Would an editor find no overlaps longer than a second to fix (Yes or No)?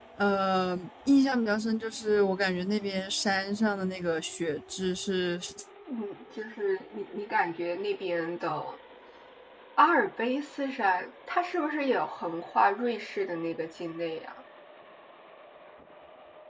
Yes